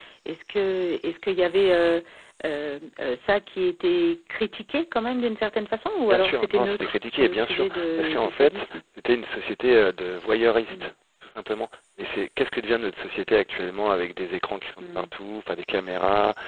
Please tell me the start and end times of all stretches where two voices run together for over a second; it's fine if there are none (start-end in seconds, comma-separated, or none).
6.1-8.7